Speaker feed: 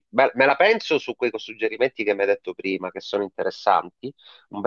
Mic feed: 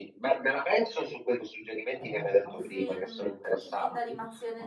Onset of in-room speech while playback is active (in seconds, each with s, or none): 1.9 s